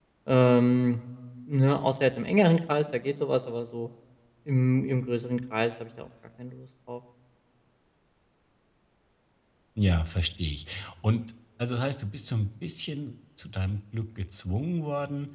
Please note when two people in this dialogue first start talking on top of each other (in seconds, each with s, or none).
none